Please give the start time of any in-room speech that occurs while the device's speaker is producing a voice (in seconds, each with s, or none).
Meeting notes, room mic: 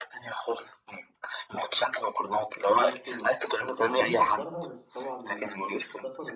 2.7 s